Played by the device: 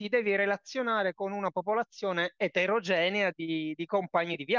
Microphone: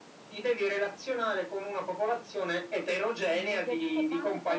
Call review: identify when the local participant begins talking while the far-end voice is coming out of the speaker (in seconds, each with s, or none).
2.0 s